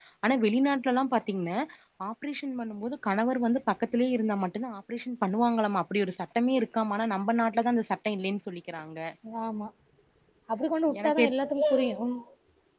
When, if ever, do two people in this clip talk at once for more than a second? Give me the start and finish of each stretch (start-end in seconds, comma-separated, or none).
none